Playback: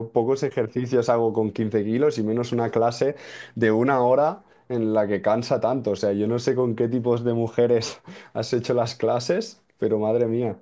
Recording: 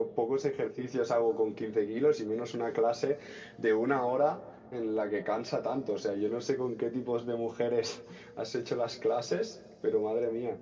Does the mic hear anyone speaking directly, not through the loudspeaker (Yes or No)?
No